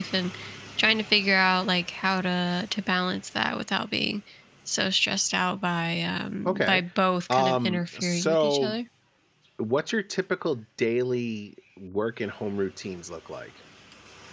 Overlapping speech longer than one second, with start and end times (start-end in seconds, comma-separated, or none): 7.3-8.8